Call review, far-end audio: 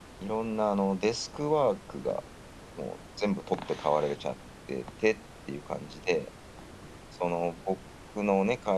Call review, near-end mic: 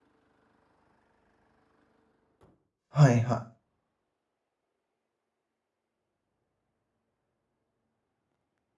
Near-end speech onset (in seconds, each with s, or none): 2.9 s